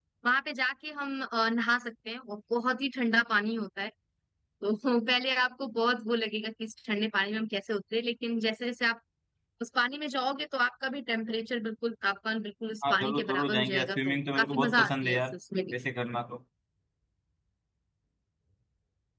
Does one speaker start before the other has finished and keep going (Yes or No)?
Yes